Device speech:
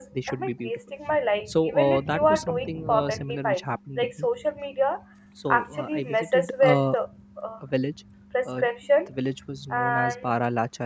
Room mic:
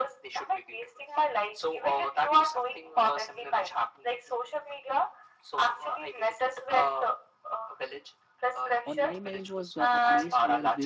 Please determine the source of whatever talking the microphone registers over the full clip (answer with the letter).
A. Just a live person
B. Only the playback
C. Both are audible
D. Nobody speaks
C